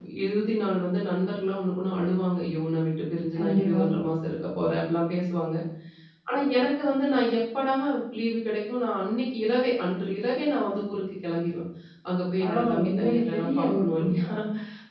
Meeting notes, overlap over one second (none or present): present